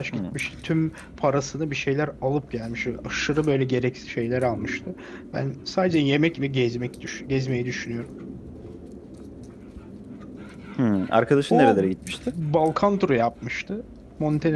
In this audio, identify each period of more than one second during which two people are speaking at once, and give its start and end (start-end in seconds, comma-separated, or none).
none